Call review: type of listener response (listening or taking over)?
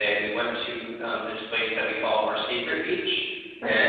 listening